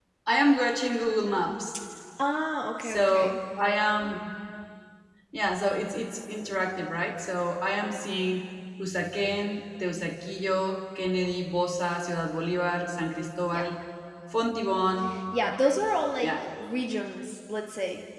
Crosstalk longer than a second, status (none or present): none